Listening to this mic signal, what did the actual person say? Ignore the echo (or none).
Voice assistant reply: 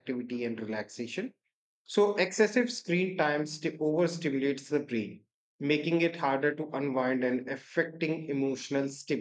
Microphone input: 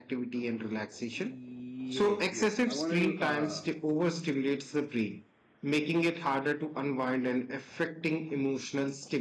Yes, yes. I wanted to, uh